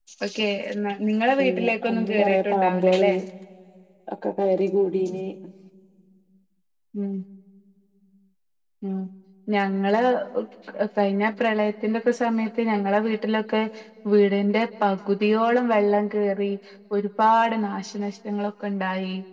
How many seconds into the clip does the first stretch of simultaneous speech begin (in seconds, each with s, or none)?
1.4 s